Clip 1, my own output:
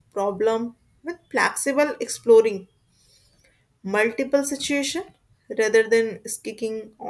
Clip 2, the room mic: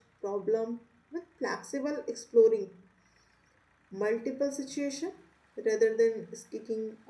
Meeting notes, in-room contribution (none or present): none